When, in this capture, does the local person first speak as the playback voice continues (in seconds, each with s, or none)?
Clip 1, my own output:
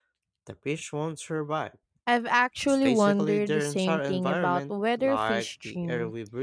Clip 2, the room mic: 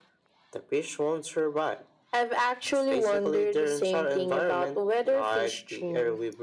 none